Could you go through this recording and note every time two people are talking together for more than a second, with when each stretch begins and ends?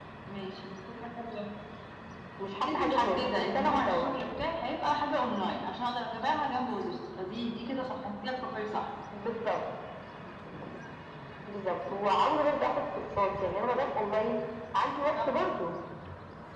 2.6-4.1

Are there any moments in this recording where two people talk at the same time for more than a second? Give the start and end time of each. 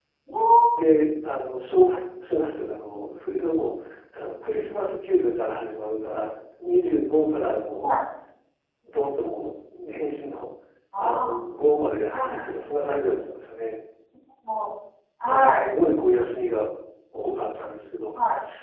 none

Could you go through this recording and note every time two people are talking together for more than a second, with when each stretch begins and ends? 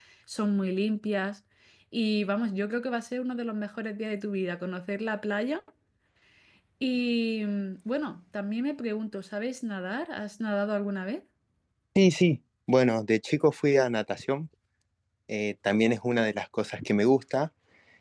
none

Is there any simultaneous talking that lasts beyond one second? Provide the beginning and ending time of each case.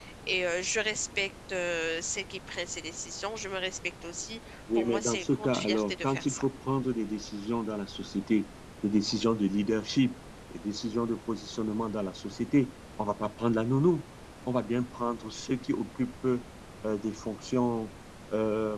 4.8-6.5

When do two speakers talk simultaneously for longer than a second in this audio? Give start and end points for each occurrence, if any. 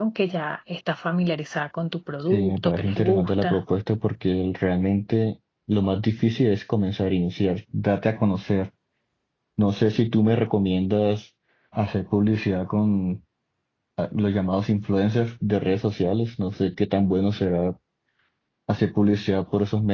2.3-3.6

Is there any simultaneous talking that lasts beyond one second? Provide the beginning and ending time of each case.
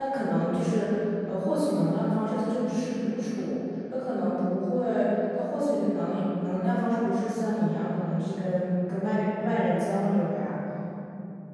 none

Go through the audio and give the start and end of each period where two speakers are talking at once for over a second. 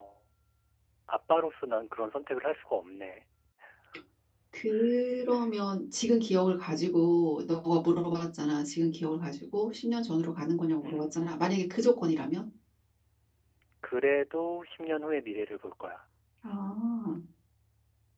none

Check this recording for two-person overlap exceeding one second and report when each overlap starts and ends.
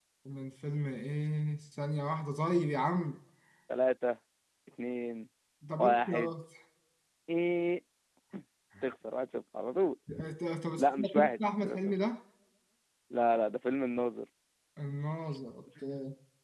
10.8-12.0

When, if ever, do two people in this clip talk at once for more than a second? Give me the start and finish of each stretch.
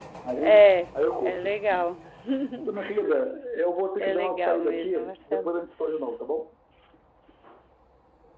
4.0-5.5

